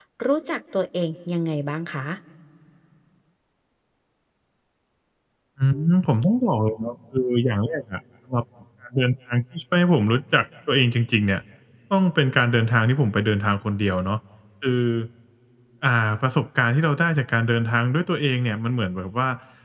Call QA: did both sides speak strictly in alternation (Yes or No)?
Yes